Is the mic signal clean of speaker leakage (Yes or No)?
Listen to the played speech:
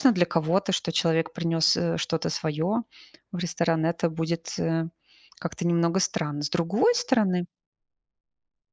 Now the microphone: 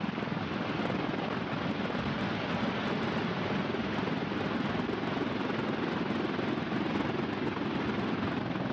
Yes